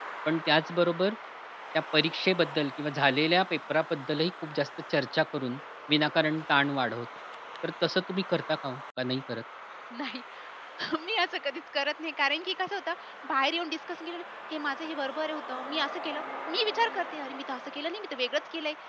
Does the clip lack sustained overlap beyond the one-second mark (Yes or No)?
Yes